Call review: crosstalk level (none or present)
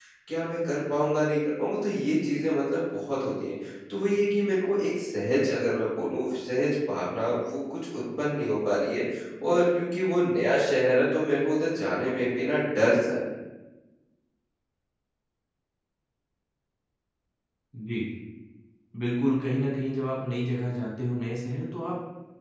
none